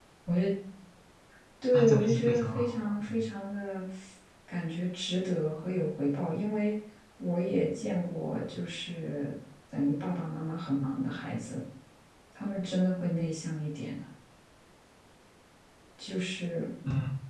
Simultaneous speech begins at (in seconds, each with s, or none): 1.7 s